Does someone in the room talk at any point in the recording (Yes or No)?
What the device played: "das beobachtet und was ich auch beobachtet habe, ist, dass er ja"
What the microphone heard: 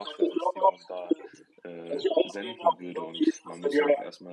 Yes